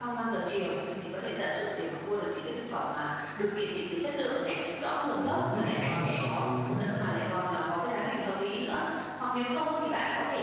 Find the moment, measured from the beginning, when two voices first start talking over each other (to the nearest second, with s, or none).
5 s